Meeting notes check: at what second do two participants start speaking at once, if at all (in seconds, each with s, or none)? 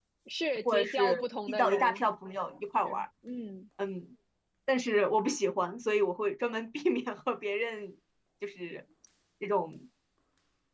0.7 s